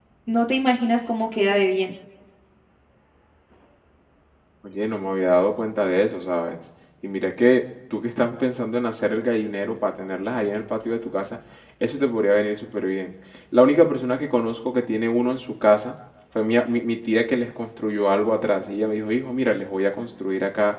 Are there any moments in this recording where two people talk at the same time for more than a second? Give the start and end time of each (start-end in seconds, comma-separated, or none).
none